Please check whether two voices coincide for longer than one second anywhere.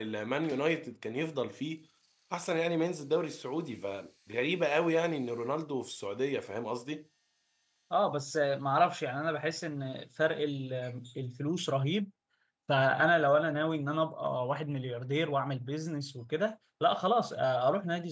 No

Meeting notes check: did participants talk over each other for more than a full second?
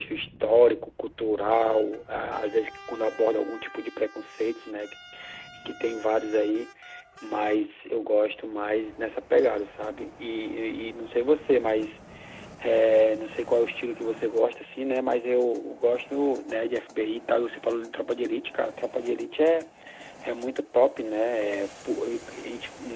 No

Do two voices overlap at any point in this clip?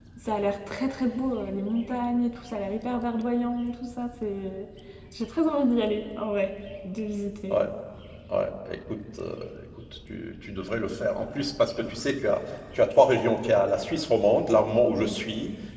No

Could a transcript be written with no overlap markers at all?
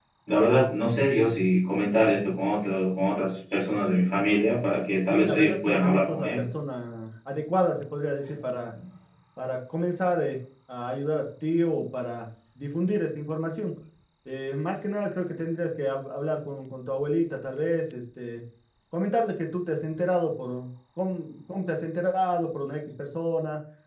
No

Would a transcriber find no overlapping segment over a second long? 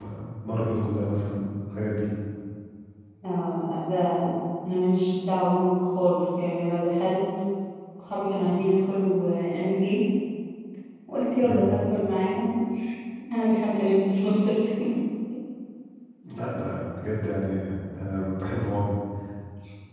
Yes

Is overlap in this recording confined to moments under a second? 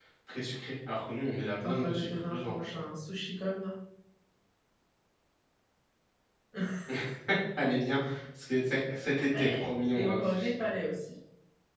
No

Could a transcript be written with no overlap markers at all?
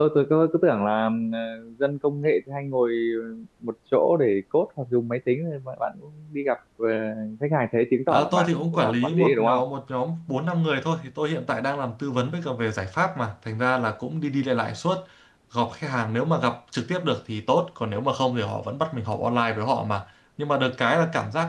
No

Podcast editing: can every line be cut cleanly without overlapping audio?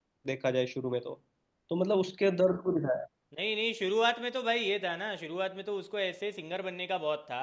Yes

